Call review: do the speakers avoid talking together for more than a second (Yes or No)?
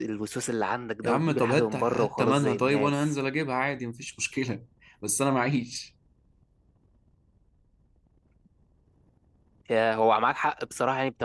No